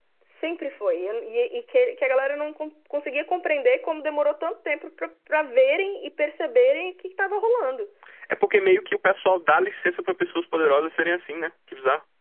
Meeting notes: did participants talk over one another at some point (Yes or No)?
No